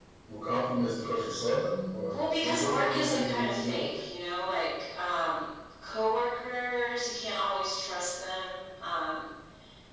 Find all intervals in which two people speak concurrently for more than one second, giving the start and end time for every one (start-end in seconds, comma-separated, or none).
2.1-3.9